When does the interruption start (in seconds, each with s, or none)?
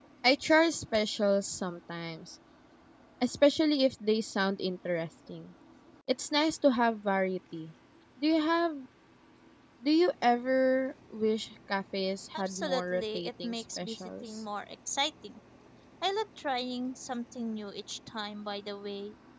12.3 s